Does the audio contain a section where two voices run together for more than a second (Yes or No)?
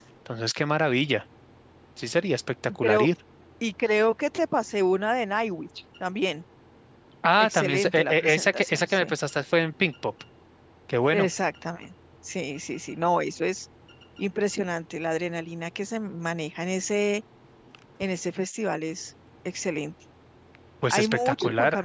Yes